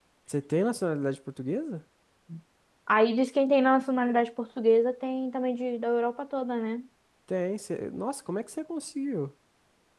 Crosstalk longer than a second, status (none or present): none